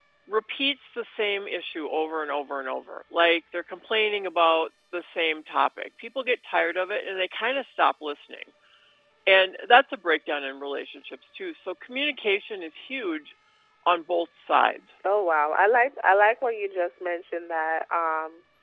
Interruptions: none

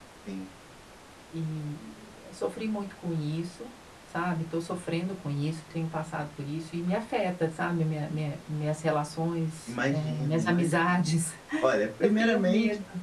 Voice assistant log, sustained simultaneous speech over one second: present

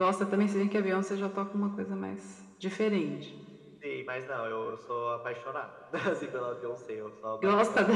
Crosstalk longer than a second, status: none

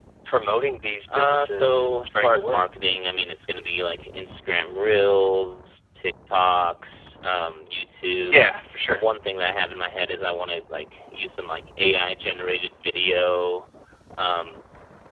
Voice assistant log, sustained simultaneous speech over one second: present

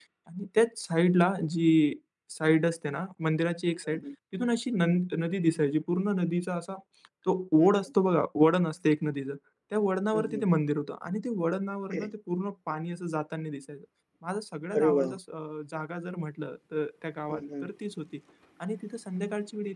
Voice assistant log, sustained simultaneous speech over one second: none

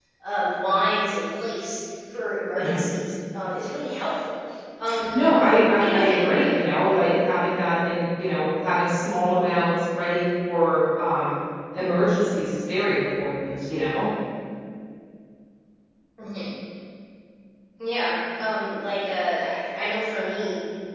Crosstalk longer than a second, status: present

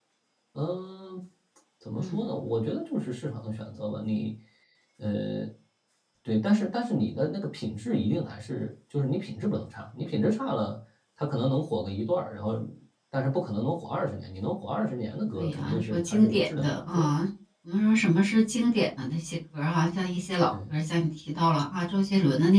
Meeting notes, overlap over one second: present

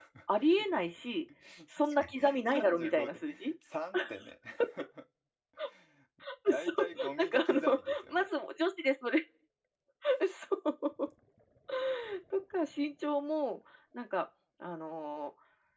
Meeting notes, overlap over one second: present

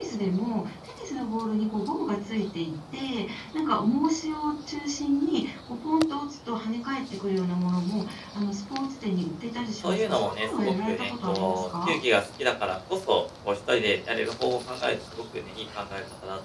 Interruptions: present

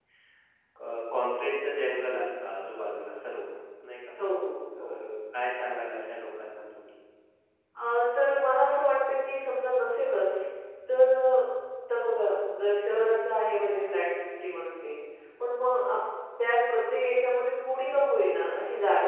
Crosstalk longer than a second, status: none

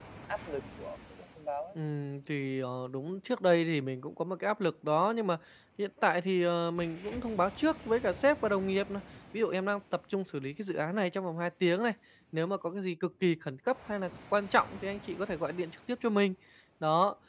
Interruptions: none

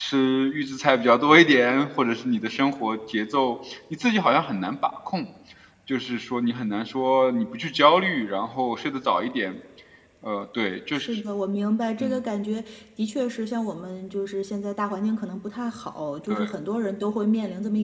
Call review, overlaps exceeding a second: none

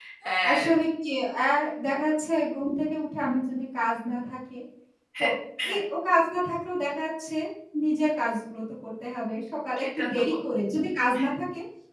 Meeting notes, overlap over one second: none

